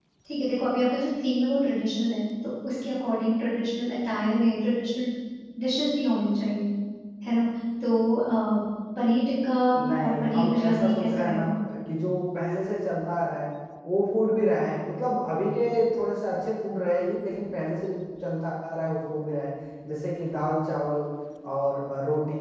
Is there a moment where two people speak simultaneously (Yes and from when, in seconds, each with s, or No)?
Yes, from 10.0 s